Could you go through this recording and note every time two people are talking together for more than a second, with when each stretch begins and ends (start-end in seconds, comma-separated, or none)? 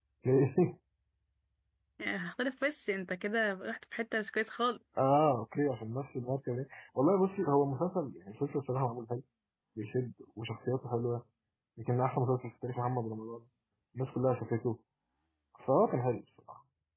none